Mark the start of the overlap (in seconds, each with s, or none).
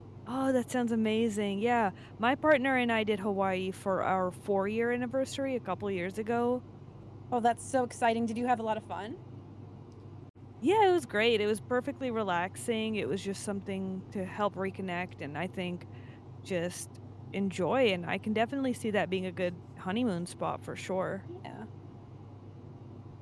none